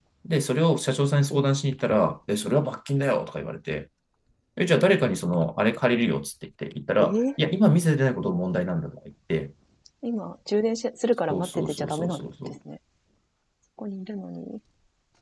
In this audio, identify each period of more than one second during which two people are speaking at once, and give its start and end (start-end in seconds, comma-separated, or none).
11.3-12.6